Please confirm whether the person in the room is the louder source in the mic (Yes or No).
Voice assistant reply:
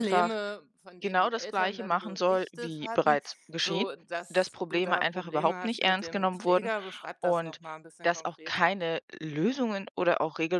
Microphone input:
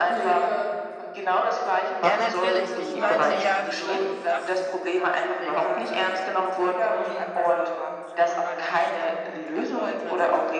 No